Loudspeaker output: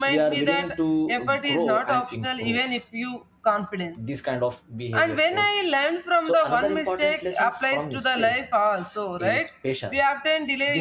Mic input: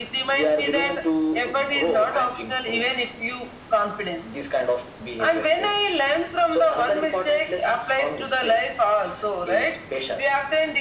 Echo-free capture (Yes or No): No